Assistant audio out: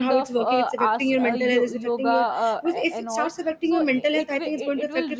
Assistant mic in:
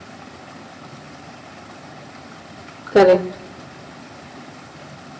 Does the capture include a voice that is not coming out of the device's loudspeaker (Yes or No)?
Yes